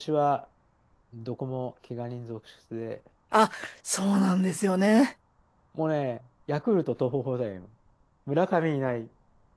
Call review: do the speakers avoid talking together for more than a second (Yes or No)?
Yes